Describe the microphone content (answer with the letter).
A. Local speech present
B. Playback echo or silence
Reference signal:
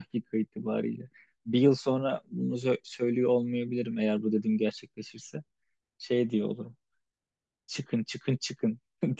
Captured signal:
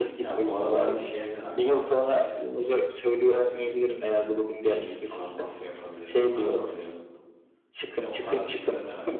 A